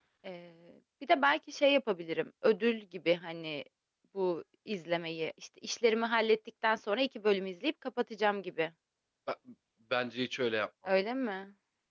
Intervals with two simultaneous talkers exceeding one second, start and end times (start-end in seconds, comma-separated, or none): none